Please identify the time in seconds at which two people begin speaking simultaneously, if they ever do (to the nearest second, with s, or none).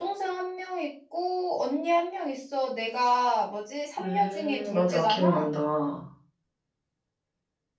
4 s